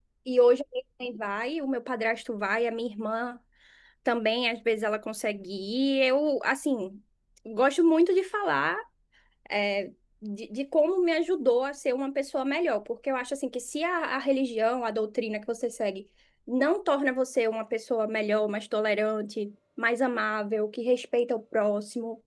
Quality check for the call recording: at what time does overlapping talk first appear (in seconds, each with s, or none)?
none